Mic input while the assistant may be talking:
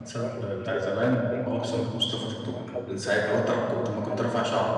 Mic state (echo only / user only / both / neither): both